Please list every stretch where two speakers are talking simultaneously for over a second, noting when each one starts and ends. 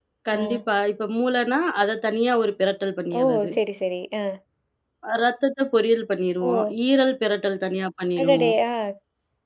none

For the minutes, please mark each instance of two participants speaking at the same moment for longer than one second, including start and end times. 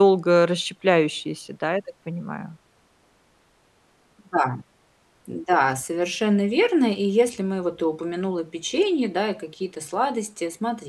none

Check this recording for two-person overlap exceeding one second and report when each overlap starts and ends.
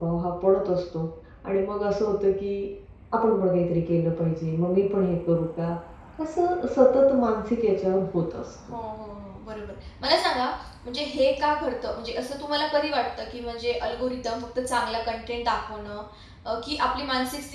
none

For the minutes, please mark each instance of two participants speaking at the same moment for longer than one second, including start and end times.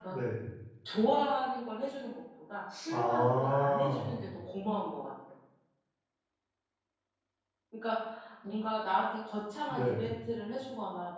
2.9-4.2

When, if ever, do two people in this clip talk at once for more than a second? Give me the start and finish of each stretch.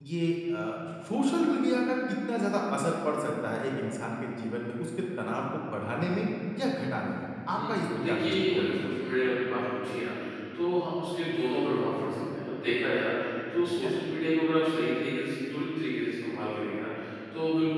7.5-8.8

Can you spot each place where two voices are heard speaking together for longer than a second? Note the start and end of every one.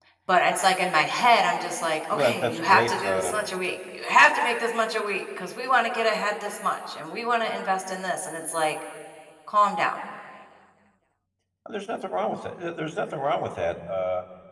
2.1-3.3

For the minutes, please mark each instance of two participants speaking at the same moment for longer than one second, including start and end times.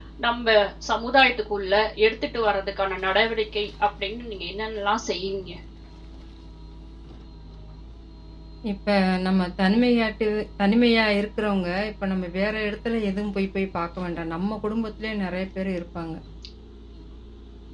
none

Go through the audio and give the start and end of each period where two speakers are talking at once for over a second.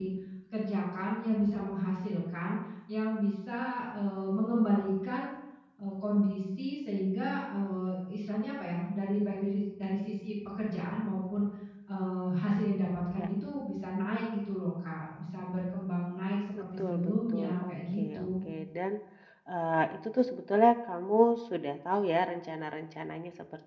16.8-18.5

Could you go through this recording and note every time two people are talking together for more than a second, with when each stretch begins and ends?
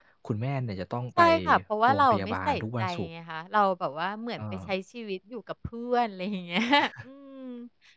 1.9-3.1

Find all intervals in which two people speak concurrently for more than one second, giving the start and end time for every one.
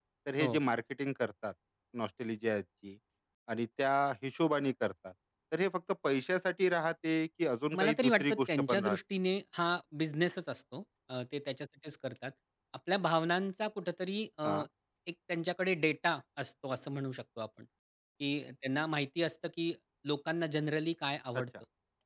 7.8-9.0

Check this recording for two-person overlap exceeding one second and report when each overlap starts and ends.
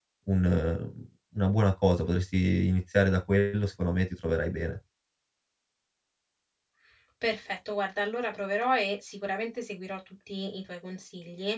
none

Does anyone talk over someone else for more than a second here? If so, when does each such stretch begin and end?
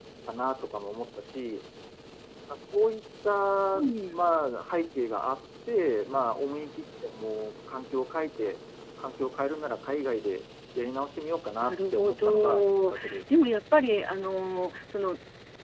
11.6-13.2

